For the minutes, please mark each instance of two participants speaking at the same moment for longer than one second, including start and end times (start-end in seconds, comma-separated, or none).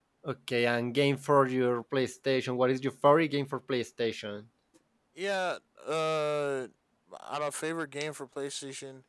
none